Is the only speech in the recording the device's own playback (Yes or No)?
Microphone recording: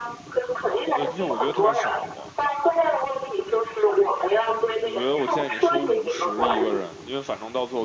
No